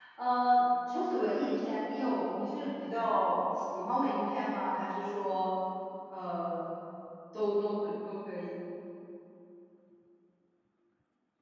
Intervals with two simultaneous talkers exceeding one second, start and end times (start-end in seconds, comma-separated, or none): none